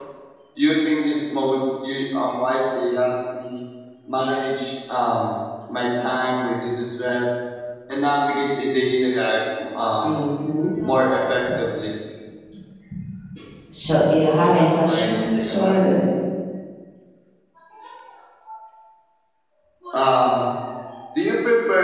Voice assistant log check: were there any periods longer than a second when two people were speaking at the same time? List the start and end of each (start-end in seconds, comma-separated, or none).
14.3-15.8